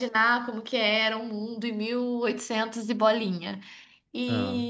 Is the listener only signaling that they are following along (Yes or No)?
Yes